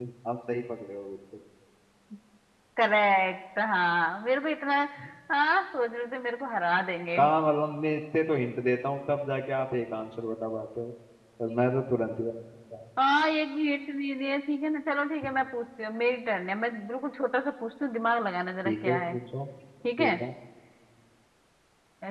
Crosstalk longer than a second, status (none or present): none